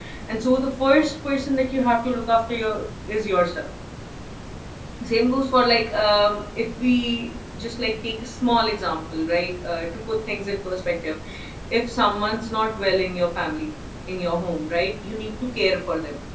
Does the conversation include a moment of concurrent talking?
No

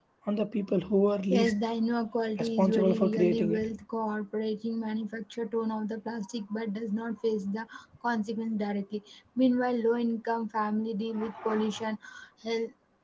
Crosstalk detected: Yes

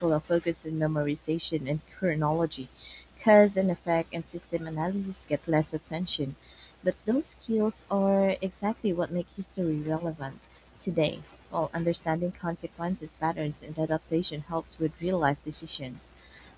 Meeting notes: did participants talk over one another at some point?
No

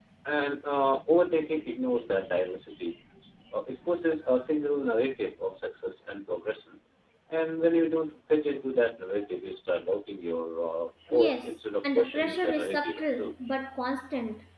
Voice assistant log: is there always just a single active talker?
No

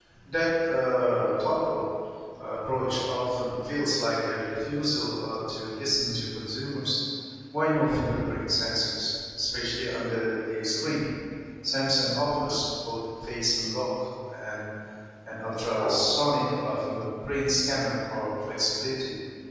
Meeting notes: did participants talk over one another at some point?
No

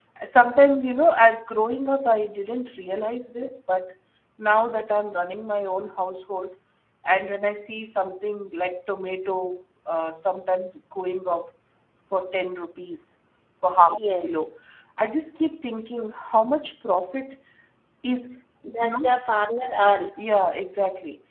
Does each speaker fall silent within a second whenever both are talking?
Yes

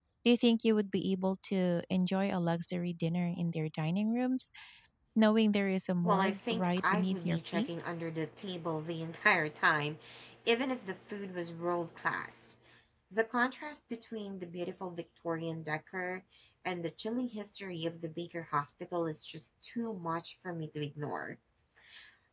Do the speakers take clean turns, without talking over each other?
No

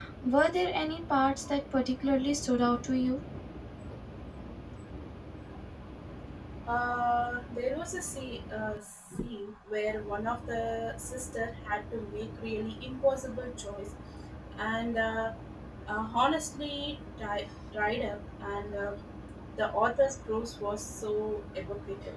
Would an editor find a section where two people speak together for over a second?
No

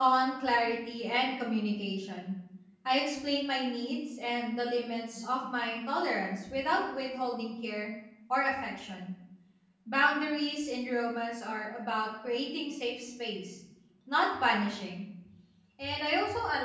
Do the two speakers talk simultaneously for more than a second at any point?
No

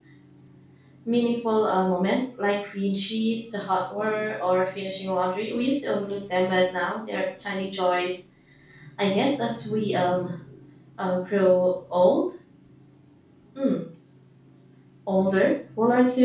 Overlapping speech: No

